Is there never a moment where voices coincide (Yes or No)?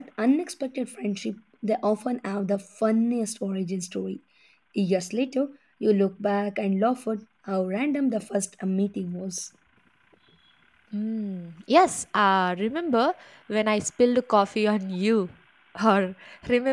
Yes